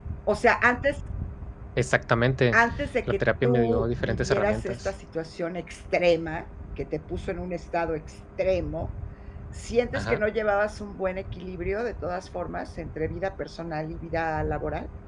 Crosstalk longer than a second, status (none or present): present